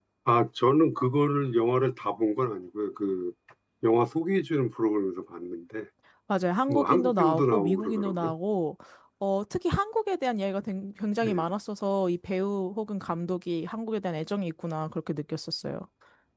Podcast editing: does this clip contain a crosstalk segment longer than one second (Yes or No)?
Yes